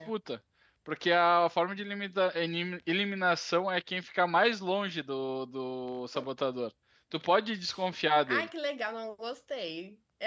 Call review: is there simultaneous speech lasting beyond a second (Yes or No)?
No